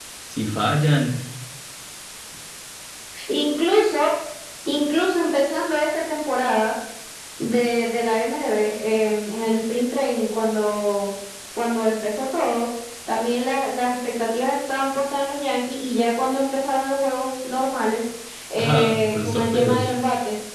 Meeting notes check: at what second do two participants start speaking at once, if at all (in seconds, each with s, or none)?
18.6 s